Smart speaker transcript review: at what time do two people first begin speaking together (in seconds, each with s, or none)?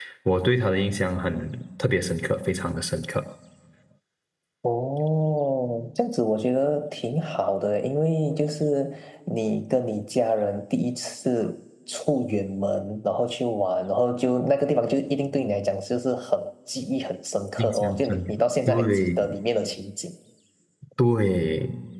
17.6 s